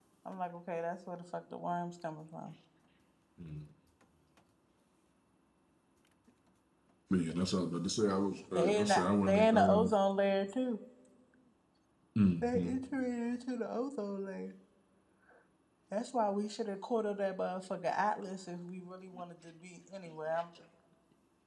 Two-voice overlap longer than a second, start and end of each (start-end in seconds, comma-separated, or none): 8.6-9.9